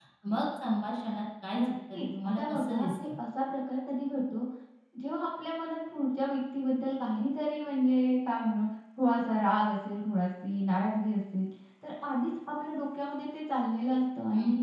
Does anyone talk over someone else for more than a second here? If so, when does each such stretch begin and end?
1.6-3.0

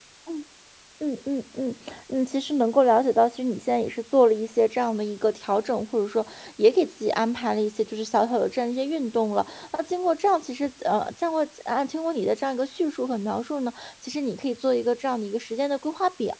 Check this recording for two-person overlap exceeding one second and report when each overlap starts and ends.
none

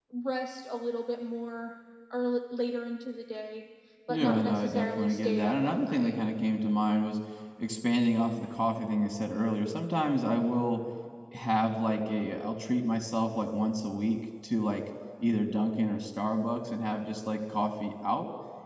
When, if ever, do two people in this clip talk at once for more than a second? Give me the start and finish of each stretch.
4.1-6.1

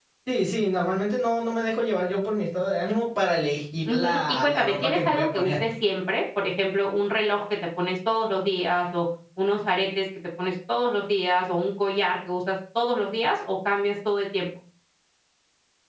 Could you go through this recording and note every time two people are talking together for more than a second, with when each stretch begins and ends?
3.9-5.5

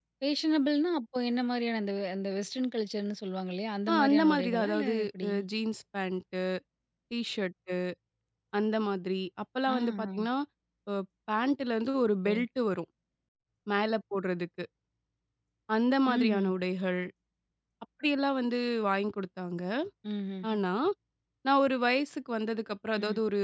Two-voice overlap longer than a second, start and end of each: 3.9-5.3

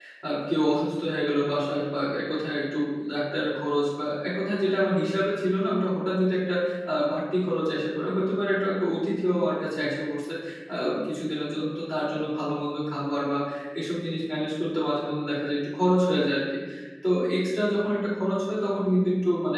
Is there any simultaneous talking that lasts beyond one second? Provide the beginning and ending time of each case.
none

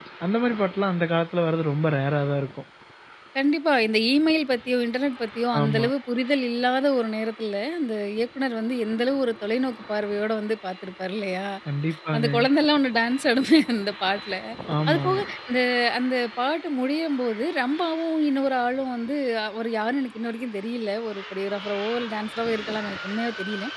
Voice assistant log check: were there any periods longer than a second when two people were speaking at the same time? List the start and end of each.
none

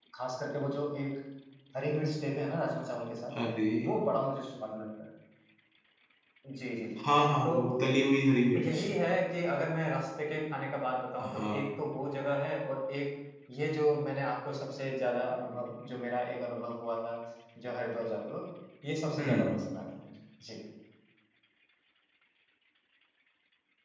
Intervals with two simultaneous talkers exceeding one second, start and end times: none

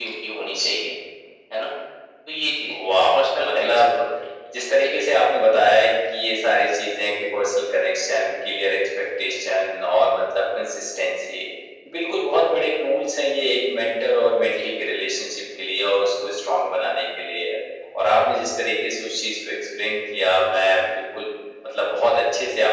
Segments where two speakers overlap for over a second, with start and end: 2.7-3.9

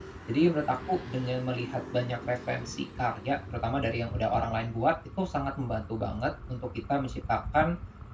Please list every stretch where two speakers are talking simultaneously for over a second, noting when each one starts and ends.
none

